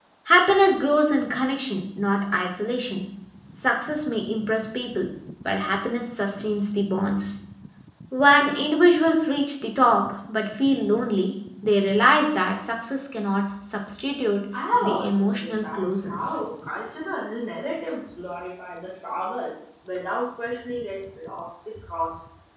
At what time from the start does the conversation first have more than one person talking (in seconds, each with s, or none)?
14.8 s